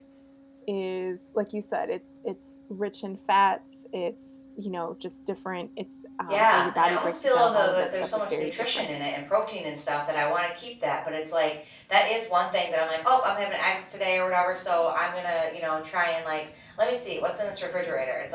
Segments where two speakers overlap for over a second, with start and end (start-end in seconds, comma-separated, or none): 6.3-8.9